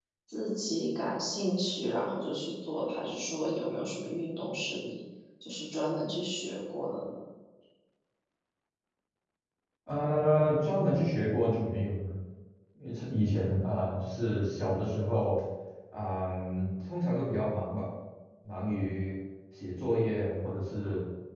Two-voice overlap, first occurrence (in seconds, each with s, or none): none